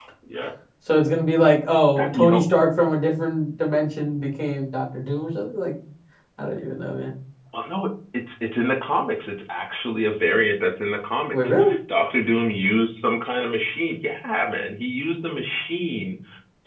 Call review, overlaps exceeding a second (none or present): none